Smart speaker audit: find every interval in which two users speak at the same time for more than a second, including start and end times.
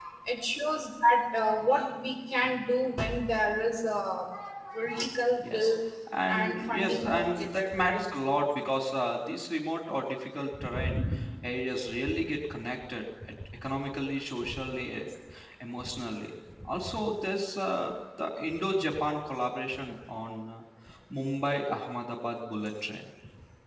6.3-8.1

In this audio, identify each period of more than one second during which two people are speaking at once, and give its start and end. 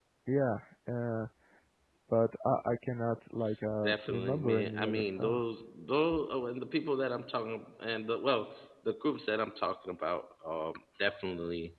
3.8-5.4

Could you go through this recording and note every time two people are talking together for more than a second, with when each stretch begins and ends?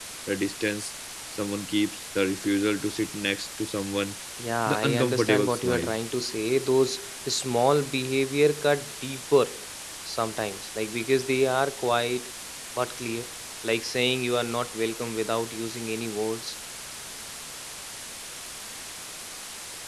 4.7-5.9

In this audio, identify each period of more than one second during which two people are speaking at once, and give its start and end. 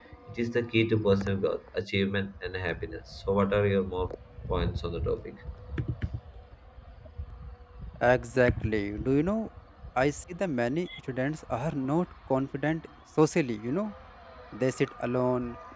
none

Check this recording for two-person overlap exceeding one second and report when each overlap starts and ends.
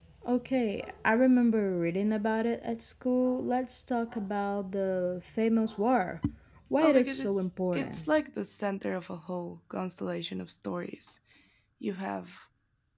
6.8-8.1

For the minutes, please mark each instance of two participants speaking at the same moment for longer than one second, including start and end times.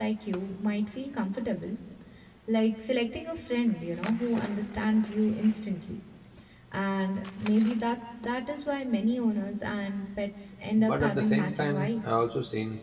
10.8-12.1

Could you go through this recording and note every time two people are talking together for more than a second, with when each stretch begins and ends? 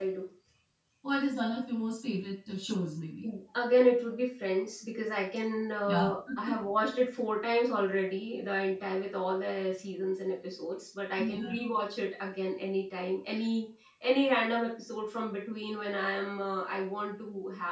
none

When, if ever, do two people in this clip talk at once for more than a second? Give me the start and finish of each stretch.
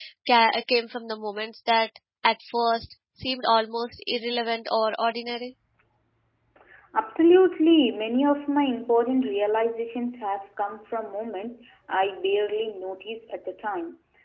none

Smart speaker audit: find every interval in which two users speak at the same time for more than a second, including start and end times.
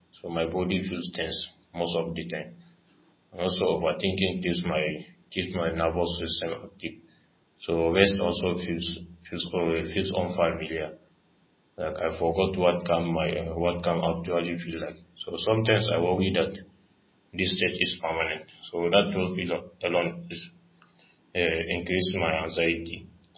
none

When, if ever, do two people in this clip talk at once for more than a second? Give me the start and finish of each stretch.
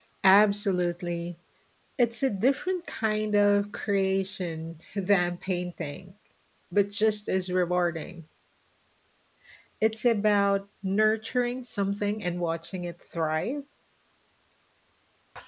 none

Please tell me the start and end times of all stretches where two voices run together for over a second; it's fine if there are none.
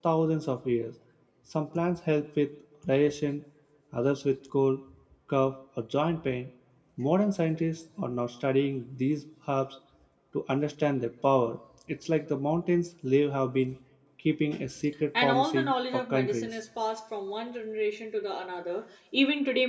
15.2-16.5

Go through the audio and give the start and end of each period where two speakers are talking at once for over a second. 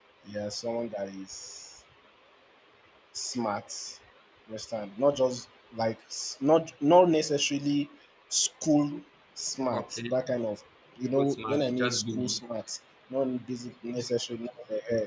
11.2-12.4

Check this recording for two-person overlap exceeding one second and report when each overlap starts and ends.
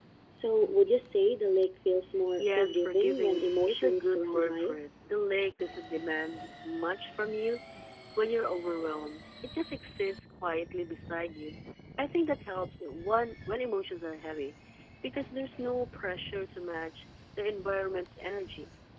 2.4-4.8

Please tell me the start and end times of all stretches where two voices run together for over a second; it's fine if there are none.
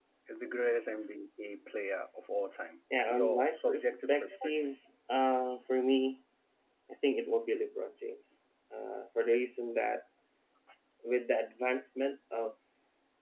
3.1-4.7

